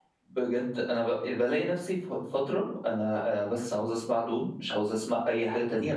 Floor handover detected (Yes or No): No